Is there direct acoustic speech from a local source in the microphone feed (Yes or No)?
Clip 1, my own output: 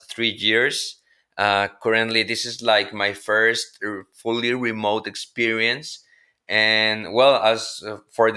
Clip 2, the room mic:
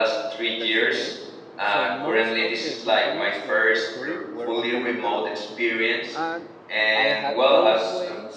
Yes